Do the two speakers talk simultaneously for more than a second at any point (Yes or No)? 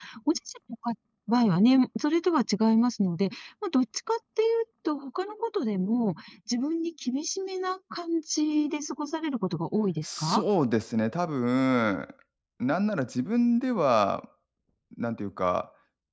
No